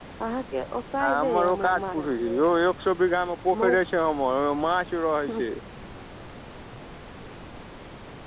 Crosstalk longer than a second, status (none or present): present